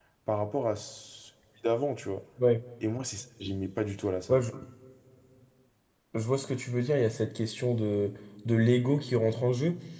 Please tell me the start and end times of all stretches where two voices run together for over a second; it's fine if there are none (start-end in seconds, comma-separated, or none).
none